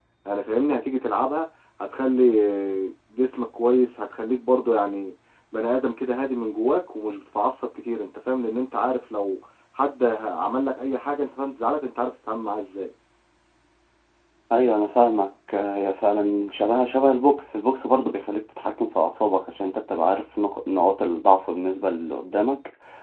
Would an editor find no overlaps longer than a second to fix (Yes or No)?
Yes